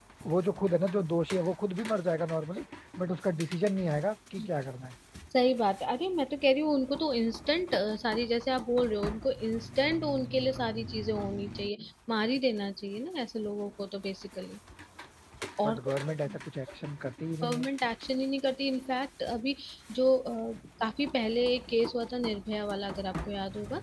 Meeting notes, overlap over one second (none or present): none